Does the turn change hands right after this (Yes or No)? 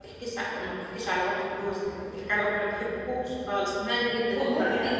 Yes